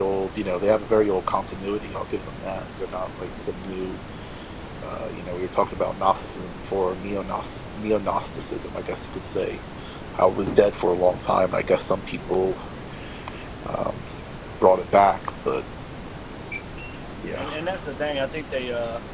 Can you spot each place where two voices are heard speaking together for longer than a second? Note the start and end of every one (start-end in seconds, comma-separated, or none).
none